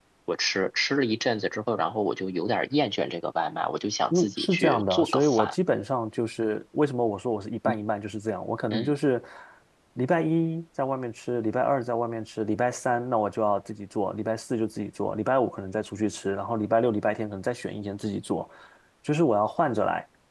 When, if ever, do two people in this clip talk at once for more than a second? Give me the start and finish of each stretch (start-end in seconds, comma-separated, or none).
4.1-5.6